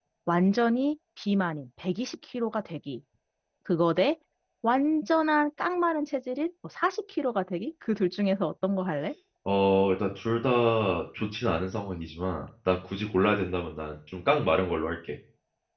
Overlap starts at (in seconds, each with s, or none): none